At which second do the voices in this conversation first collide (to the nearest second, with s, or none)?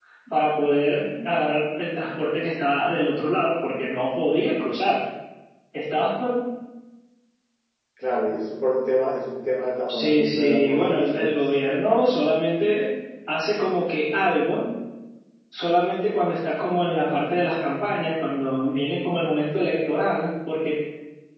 10 s